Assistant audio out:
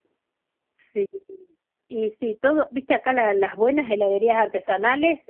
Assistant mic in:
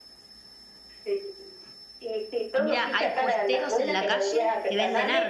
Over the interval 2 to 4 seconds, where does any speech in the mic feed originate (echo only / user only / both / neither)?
both